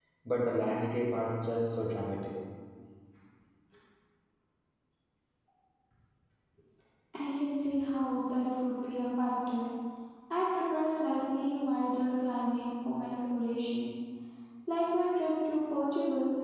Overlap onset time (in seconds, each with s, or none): none